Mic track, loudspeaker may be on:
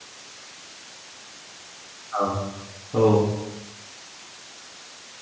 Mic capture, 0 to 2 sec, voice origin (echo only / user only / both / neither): neither